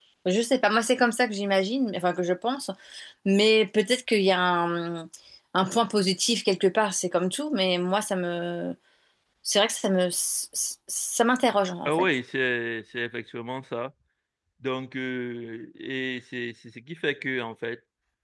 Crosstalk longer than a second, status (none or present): none